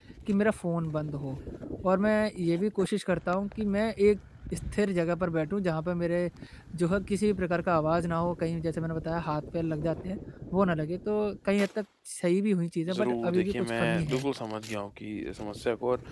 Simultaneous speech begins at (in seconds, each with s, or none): 12.9 s